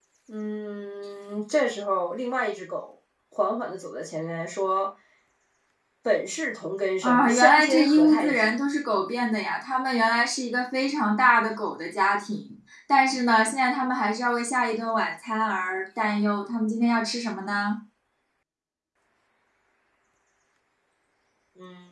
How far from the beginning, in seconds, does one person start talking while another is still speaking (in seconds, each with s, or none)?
7.0 s